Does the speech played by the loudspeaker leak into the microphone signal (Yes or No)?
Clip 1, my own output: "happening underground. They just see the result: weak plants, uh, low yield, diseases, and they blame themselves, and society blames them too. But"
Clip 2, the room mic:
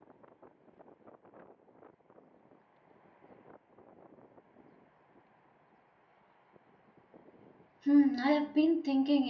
No